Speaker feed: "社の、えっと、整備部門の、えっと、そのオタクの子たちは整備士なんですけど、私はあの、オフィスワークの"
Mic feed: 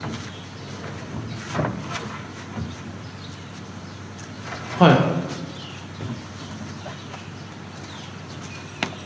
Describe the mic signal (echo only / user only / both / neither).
user only